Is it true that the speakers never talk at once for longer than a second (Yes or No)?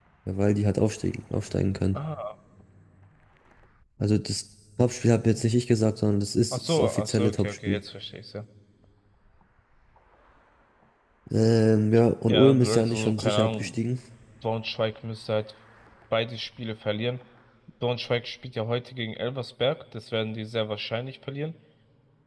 No